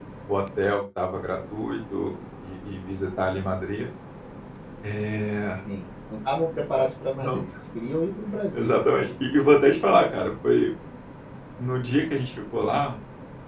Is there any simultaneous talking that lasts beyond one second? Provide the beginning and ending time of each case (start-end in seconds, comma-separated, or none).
none